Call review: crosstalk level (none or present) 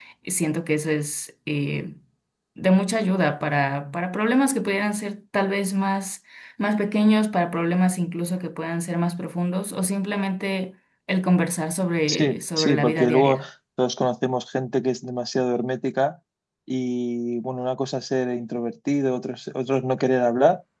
present